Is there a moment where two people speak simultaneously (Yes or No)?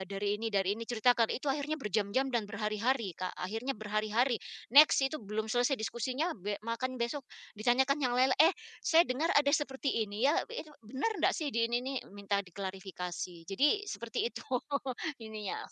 No